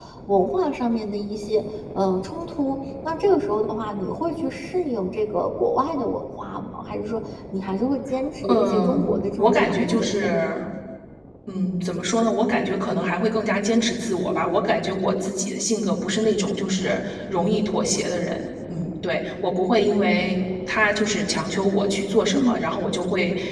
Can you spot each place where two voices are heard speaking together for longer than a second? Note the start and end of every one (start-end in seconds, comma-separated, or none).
8.5-10.6